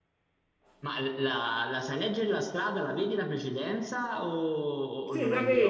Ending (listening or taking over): taking over